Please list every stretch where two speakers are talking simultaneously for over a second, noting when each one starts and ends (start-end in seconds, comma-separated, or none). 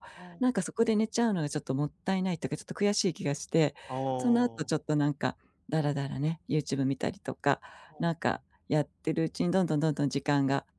none